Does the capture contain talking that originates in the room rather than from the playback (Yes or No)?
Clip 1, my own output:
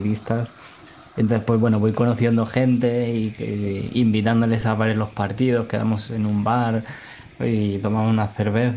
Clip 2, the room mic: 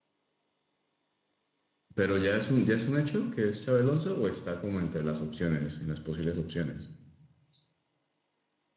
Yes